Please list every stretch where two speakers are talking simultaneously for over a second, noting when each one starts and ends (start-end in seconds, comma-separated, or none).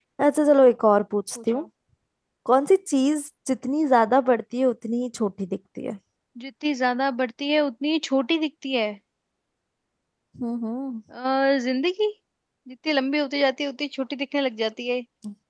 none